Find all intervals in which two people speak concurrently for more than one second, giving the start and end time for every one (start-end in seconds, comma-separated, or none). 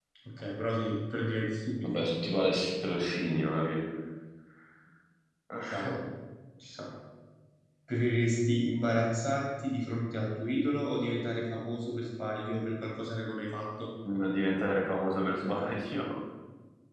none